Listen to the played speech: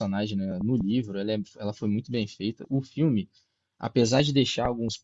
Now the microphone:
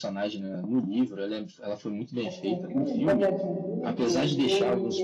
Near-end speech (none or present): present